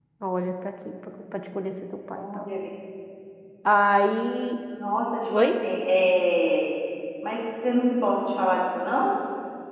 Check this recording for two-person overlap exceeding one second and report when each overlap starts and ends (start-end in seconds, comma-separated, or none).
none